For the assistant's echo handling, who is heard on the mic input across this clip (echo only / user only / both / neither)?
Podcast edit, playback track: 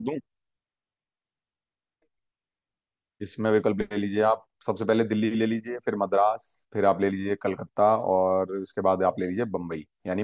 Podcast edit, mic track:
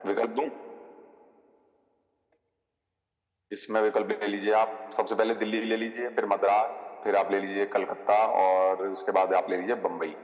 echo only